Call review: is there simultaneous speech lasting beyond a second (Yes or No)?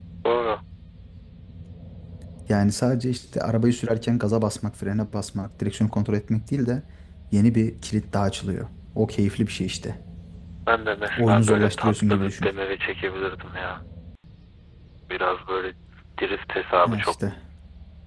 Yes